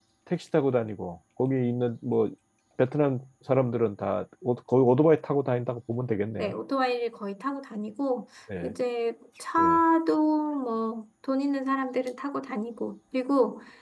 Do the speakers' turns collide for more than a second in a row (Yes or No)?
No